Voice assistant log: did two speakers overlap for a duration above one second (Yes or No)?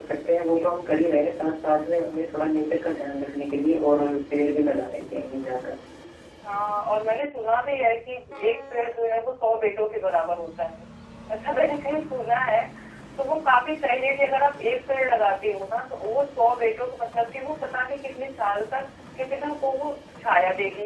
No